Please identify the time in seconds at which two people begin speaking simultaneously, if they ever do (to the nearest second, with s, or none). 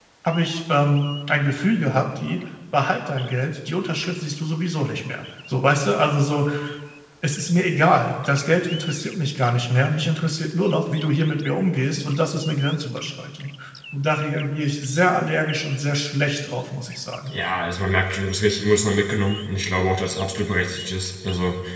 none